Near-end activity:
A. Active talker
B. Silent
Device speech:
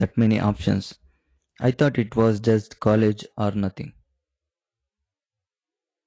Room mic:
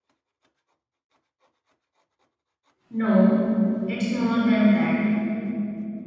A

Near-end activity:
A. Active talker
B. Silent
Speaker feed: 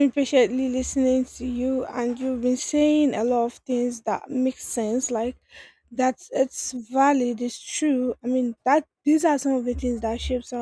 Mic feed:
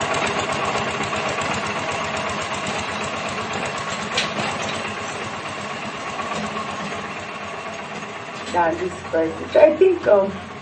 A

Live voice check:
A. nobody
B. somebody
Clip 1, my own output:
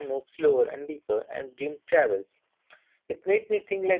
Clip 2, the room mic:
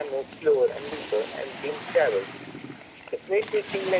A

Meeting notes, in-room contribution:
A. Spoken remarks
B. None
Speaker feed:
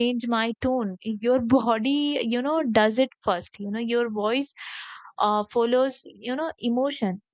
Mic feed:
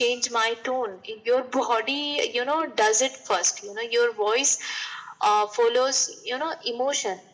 B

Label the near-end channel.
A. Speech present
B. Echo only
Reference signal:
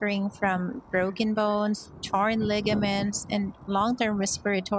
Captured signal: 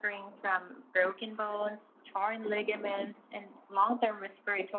B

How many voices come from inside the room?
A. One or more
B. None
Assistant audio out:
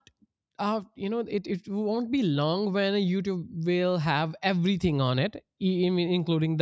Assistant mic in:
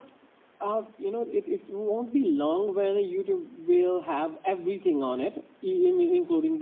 B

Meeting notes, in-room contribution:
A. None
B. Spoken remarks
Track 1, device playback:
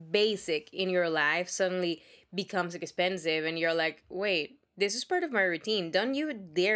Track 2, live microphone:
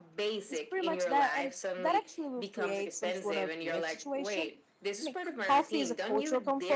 B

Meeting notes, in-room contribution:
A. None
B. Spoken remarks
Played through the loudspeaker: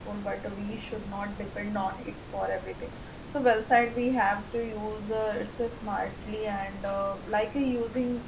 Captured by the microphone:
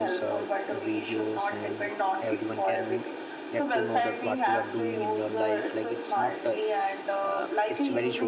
B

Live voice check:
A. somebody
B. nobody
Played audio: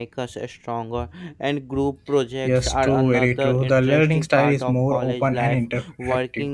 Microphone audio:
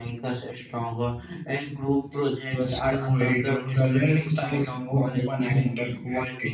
B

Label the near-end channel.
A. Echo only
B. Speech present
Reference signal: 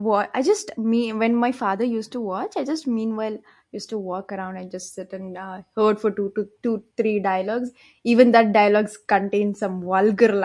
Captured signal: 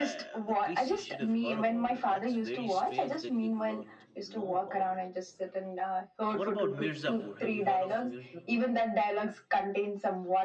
B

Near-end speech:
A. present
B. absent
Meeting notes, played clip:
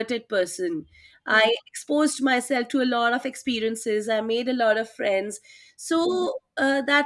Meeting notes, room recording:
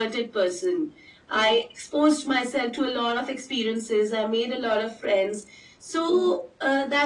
B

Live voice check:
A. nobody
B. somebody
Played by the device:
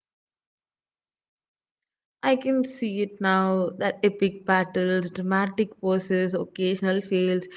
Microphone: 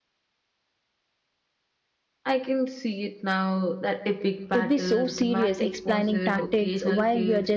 B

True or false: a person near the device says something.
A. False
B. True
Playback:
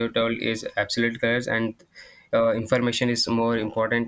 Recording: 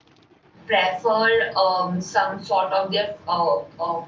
B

